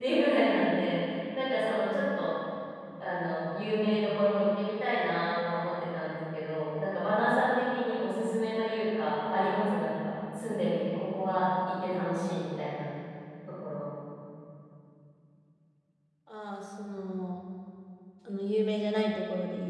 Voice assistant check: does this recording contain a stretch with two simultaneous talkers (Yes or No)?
No